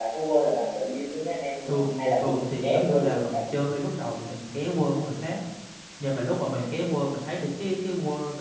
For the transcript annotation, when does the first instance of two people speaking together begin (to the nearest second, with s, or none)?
2 s